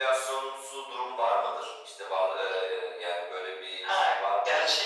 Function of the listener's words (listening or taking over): taking over